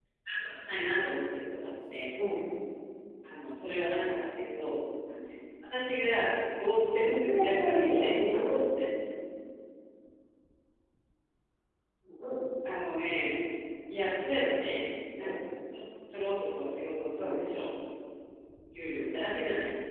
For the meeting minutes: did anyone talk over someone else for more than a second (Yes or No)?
Yes